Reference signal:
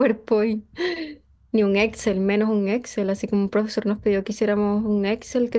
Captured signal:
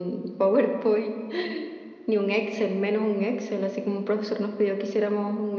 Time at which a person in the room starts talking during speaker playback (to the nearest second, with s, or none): none